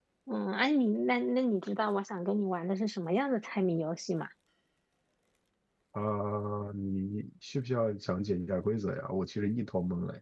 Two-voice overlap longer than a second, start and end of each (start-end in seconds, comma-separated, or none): none